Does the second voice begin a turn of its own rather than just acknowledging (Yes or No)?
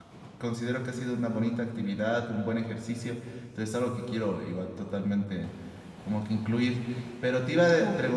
Yes